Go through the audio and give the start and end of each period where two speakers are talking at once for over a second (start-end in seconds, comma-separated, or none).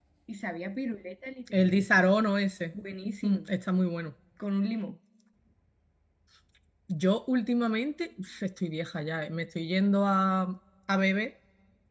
none